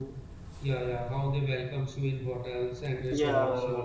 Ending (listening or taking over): listening